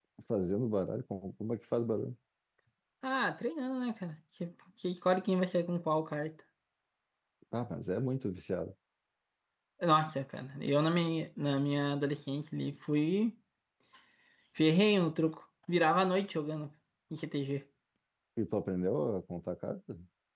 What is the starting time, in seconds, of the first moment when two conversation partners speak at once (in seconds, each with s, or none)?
none